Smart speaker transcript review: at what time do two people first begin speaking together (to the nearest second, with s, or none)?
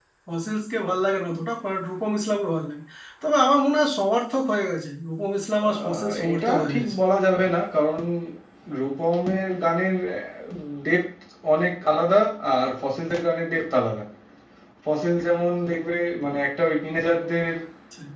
6 s